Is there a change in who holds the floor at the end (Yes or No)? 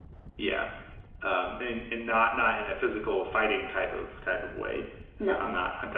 No